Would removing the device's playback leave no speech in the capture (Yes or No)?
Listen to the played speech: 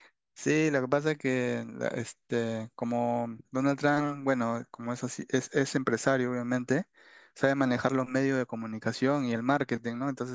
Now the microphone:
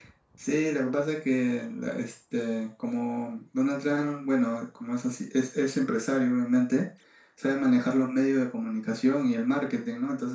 Yes